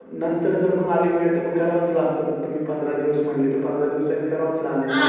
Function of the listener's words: taking over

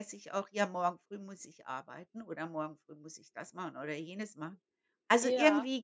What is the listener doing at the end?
listening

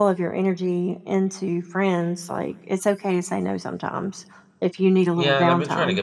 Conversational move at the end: taking over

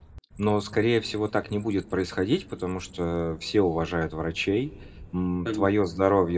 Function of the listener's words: listening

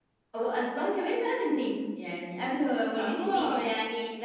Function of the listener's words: taking over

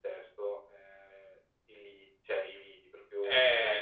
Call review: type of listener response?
taking over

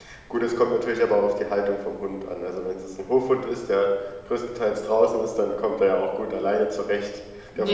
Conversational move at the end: taking over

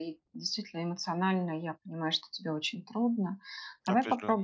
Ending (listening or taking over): listening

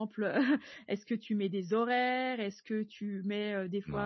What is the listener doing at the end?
listening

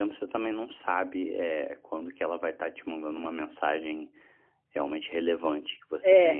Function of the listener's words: taking over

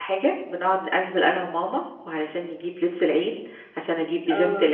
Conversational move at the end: listening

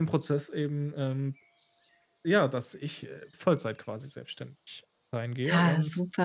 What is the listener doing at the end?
taking over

